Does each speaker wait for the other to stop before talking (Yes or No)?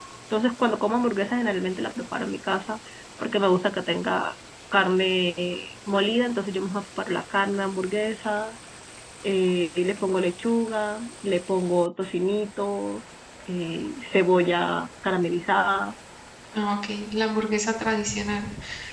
Yes